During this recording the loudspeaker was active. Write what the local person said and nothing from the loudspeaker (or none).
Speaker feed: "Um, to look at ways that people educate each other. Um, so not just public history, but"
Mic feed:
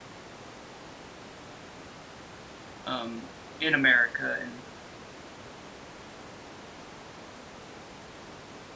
um, in America, and